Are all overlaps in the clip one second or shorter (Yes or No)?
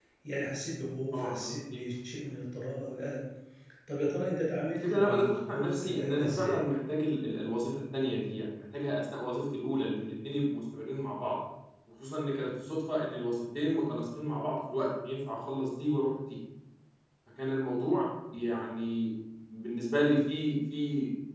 No